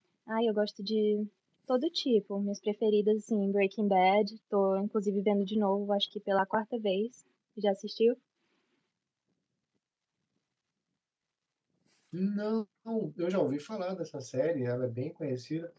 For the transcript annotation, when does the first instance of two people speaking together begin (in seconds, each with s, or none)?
none